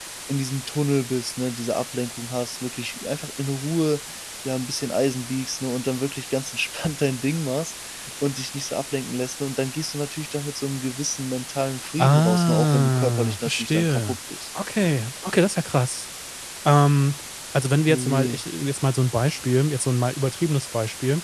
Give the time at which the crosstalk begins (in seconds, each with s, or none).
12.0 s